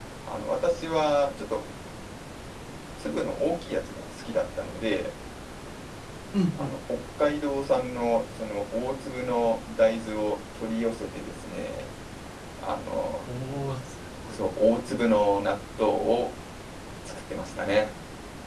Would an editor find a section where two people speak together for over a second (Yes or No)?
No